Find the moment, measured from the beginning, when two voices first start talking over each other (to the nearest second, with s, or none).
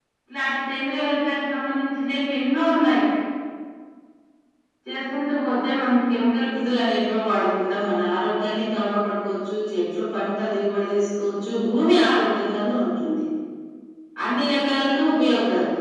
none